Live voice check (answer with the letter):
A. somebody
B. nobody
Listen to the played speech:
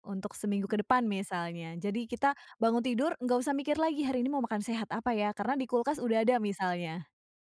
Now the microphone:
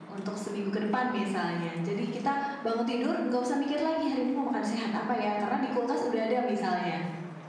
B